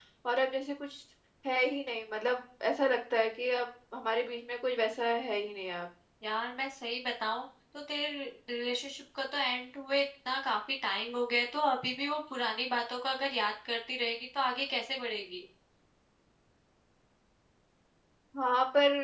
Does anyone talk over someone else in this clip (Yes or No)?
No